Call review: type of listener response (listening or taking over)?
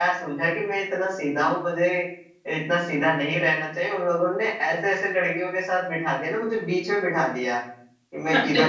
listening